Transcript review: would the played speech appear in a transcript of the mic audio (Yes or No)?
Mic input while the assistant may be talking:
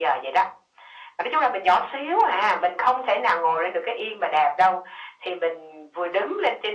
Yes